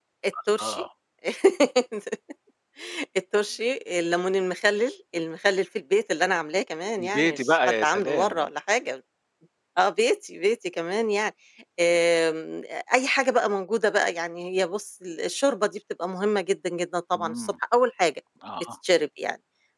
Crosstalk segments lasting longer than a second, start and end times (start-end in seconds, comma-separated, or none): 7.0-8.4